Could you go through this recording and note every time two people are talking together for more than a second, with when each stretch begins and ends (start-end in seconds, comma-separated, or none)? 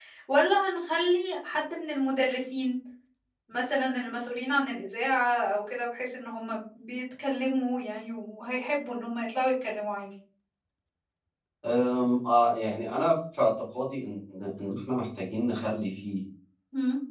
none